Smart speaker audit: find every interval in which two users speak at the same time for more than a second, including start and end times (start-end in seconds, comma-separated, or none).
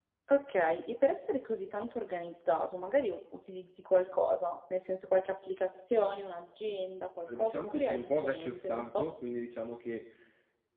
7.3-9.1